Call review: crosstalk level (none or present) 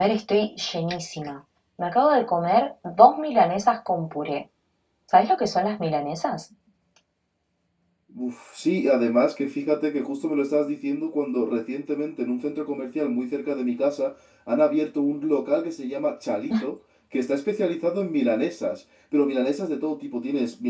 none